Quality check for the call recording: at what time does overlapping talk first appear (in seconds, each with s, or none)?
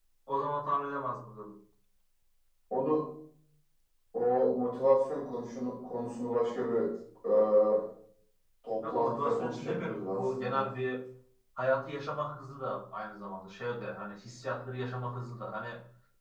8.9 s